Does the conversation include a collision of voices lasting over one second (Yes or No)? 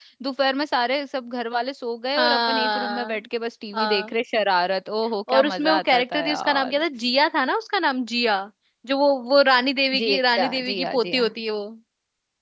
Yes